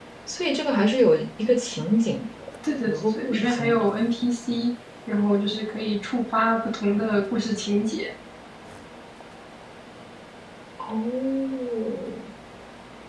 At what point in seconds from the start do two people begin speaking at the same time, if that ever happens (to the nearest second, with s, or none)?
3 s